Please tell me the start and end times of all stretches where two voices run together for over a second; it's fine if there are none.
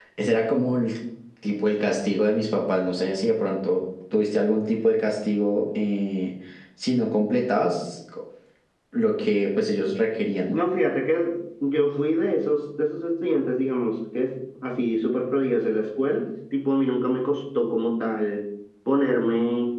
none

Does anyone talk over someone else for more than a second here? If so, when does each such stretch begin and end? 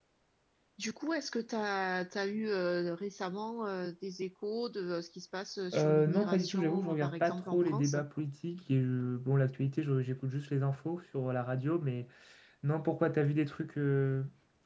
5.7-8.0

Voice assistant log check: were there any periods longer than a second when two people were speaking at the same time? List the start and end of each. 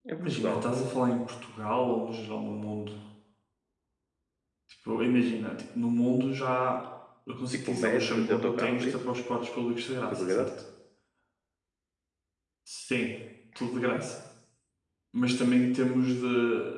7.7-9.0

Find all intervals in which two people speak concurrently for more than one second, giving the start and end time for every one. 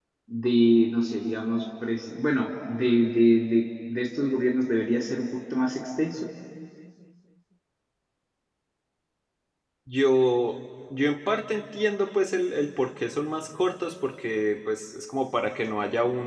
none

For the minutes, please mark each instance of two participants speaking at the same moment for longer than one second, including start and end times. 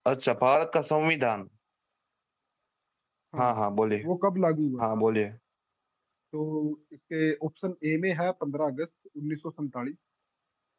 none

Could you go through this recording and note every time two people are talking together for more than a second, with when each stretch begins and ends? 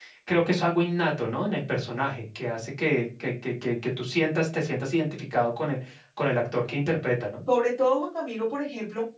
none

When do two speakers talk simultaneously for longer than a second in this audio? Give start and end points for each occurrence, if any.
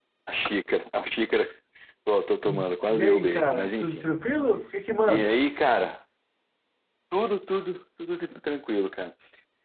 2.5-4.1

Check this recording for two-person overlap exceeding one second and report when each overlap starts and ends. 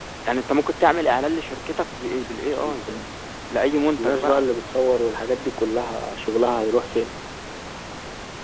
none

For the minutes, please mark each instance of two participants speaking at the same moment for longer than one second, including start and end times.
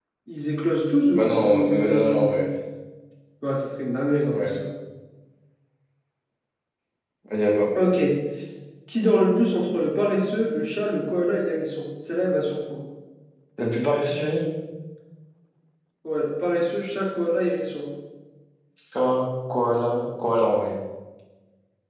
1.1-2.5

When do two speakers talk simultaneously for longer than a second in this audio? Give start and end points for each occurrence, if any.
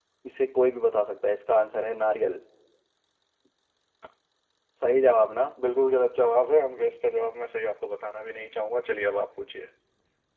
none

